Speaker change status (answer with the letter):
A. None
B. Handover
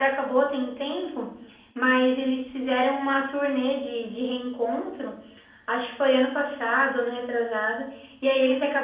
A